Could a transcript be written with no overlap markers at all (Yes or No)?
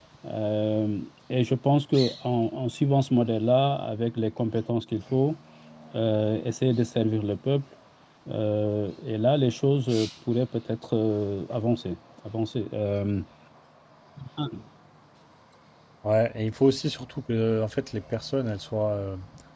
Yes